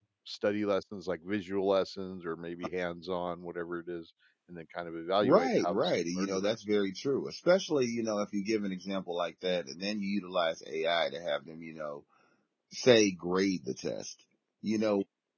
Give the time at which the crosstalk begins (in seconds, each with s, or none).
5.2 s